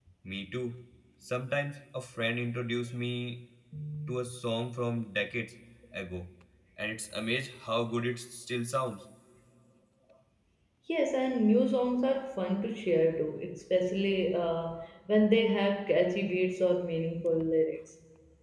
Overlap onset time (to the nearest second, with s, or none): none